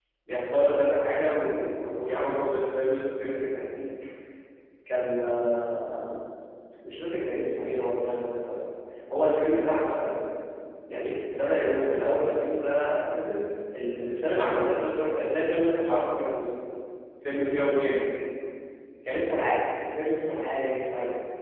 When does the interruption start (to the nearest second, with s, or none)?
none